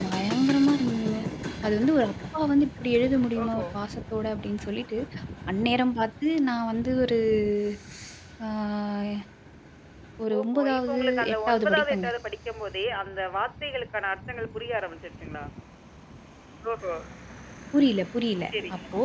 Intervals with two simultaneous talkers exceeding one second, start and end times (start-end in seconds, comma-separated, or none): 10.4-12.1